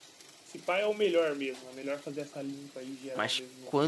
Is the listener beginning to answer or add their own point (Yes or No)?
Yes